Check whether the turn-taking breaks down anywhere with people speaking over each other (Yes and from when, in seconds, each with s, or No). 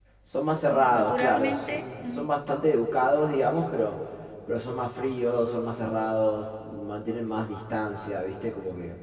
Yes, from 0.7 s